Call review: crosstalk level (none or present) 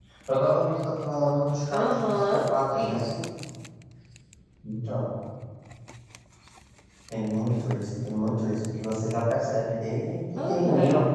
present